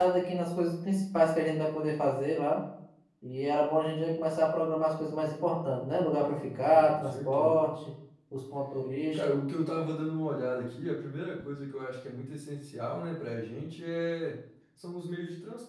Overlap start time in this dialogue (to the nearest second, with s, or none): 6 s